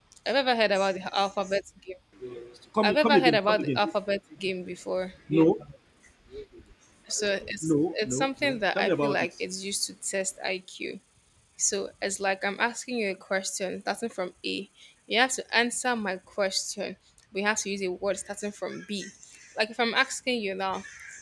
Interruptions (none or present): present